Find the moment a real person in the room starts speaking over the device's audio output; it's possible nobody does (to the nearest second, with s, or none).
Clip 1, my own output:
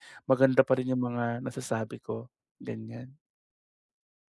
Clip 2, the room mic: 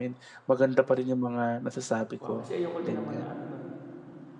2 s